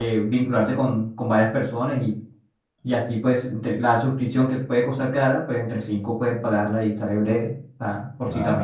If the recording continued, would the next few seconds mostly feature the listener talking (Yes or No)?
Yes